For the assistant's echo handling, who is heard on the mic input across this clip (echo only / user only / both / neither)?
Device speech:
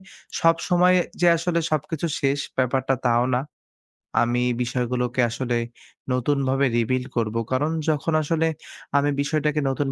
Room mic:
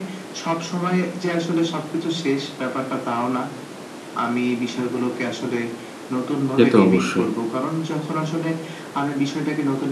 both